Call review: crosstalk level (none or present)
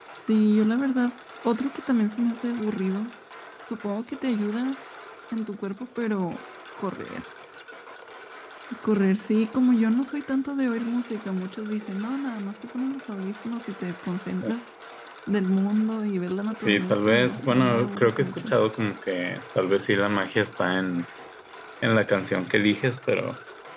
present